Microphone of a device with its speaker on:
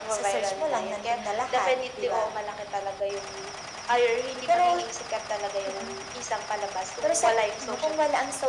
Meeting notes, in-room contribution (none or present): none